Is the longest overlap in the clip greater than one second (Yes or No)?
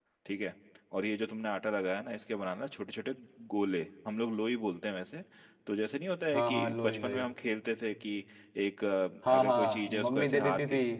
Yes